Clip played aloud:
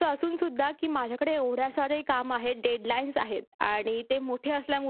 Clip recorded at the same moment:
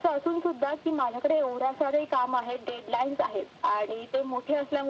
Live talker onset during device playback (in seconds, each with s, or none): none